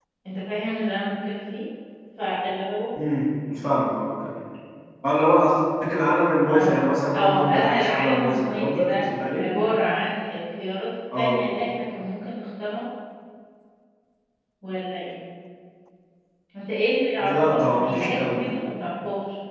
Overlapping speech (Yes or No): Yes